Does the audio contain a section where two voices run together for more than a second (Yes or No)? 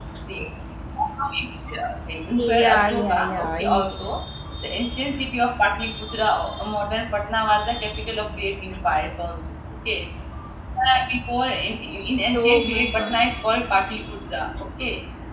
Yes